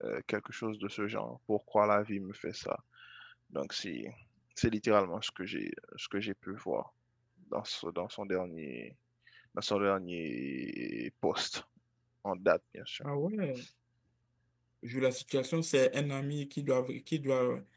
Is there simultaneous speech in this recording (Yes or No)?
No